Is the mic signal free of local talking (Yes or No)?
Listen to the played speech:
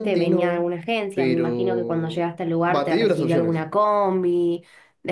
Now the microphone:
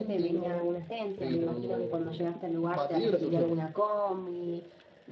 Yes